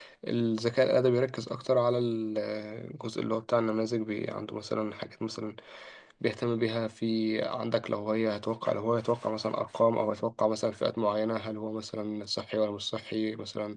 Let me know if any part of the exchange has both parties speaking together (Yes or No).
No